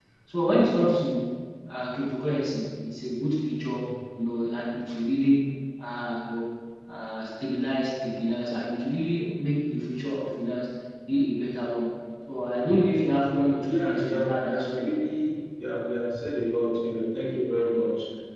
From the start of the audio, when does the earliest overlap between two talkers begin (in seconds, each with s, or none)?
13.7 s